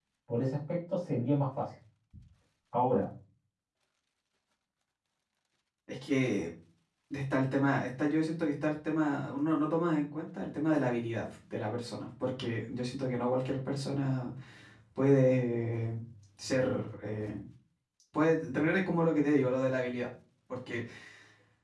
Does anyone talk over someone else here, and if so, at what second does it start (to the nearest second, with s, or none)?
none